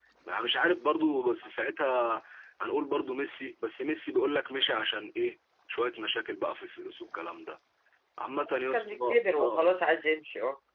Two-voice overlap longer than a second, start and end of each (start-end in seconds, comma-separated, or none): 8.5-9.7